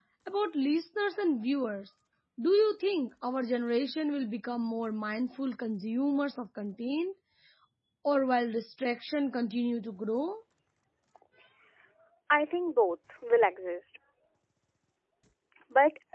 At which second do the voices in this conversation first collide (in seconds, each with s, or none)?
none